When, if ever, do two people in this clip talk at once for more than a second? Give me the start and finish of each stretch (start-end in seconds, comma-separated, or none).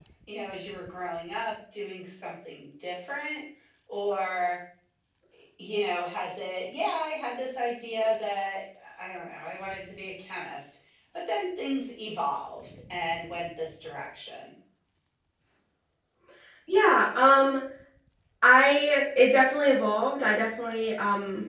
none